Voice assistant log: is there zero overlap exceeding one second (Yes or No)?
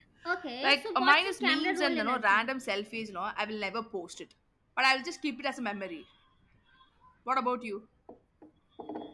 No